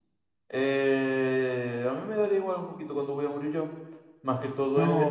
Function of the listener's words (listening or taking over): taking over